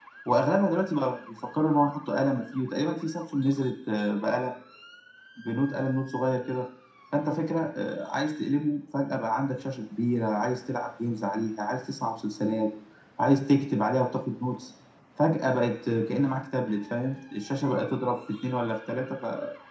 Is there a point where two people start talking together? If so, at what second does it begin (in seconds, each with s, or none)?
none